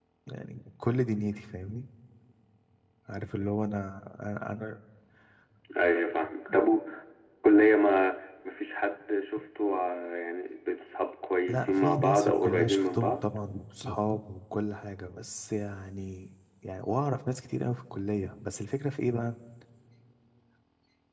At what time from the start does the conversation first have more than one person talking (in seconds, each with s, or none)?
11.5 s